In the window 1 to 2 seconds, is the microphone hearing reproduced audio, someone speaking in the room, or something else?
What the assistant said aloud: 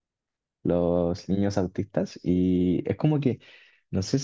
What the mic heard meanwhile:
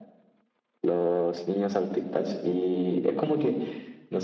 echo only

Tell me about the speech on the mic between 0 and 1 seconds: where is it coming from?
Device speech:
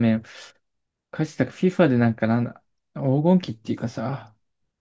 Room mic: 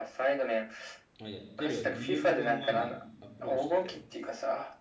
echo only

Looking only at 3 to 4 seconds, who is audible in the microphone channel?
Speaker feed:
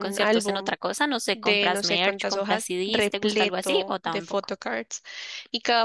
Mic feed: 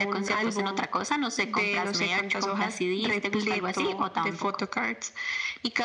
echo only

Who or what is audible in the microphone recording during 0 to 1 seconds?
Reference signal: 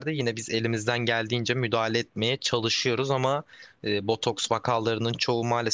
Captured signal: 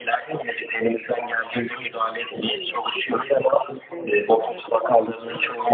echo only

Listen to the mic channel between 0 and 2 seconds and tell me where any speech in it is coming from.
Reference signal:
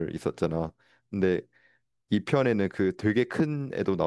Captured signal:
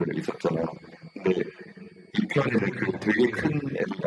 echo only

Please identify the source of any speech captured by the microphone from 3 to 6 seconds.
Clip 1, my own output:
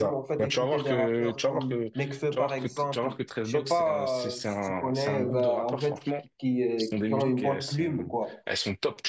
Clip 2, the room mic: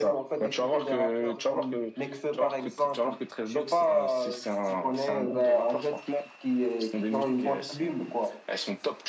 echo only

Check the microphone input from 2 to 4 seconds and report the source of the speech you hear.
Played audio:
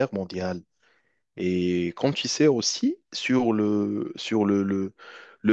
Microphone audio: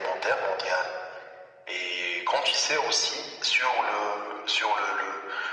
echo only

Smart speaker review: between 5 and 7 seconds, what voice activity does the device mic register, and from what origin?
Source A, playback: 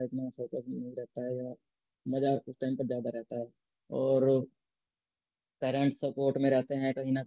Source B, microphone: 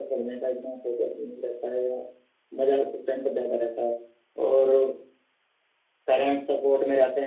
echo only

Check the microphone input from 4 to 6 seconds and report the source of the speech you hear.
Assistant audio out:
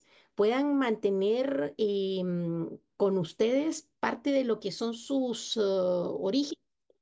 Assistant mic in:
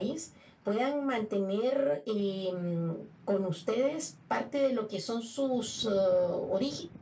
echo only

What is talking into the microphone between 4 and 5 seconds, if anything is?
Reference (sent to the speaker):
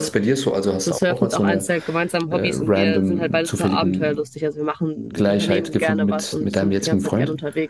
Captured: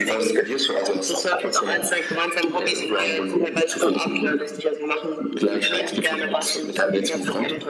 both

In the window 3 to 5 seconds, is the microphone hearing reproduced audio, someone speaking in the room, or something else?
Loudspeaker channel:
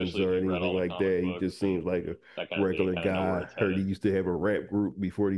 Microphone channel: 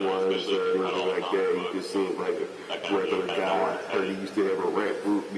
echo only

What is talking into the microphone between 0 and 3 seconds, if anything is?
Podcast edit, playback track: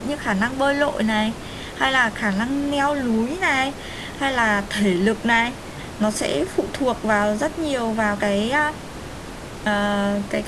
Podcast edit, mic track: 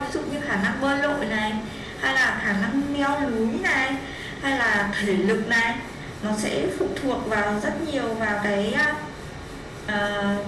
echo only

